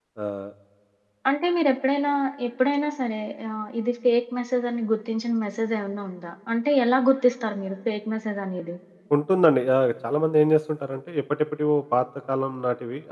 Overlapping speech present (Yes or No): No